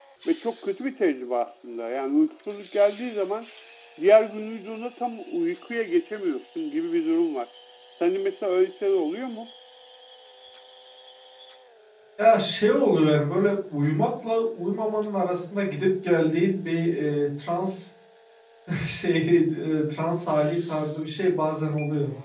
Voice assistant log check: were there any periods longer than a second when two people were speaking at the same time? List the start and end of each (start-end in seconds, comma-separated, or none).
none